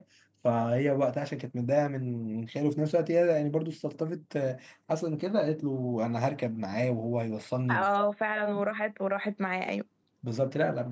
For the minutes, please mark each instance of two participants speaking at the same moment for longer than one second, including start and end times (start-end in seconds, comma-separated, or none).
none